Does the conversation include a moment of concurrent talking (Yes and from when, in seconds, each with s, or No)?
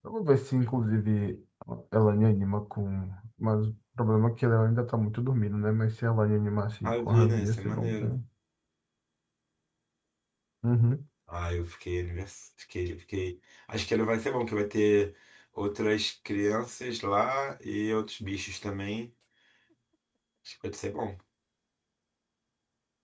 Yes, from 6.8 s